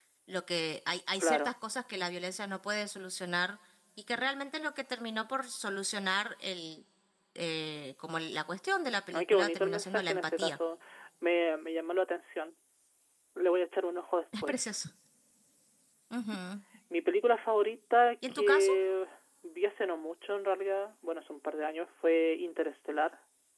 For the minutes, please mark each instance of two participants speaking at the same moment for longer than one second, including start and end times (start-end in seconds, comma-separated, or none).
9.1-10.6